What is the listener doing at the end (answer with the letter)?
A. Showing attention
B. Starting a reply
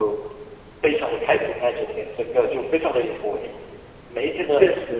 A